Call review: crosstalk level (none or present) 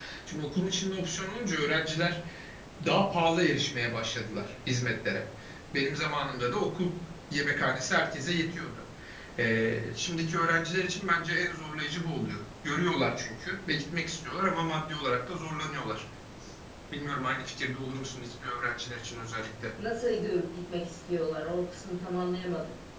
none